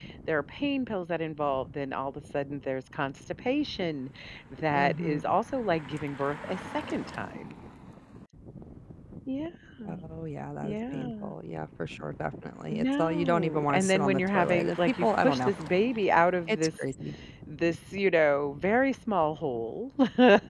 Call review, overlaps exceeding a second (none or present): present